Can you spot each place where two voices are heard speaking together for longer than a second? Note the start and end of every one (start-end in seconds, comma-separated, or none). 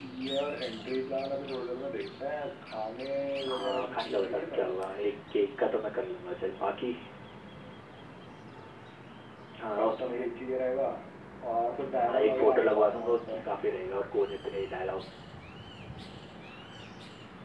3.5-4.8, 12.0-13.4